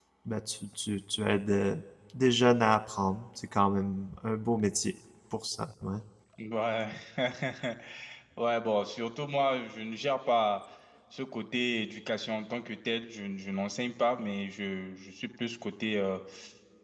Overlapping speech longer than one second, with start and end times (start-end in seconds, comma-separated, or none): none